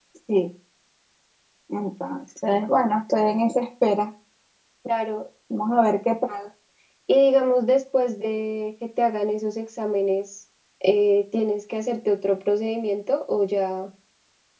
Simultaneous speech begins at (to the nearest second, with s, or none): none